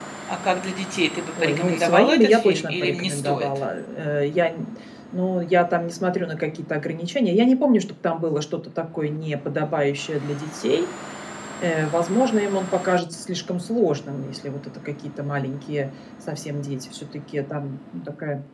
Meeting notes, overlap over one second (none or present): present